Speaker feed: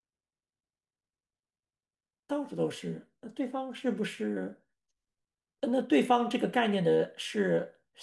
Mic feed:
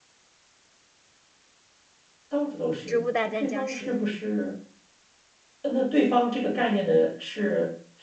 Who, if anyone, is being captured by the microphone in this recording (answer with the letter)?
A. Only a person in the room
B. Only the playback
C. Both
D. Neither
C